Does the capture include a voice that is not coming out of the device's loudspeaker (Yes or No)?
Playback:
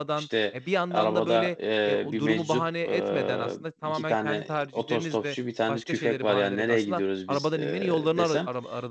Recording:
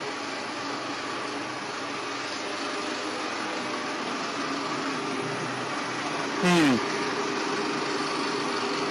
Yes